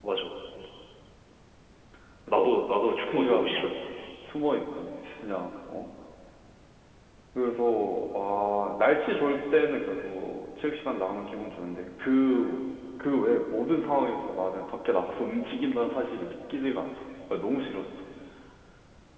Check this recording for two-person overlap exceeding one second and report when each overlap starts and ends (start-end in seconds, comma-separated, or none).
2.3-3.6